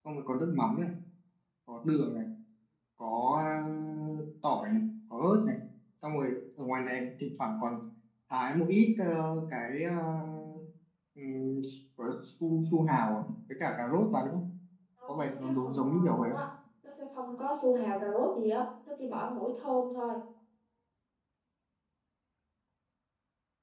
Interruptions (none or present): present